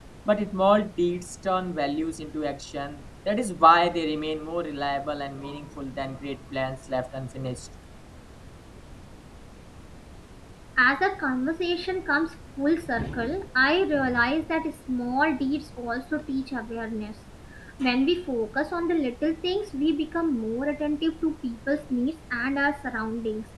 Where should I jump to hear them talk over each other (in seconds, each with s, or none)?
none